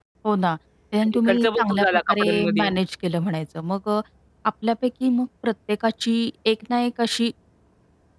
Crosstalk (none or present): present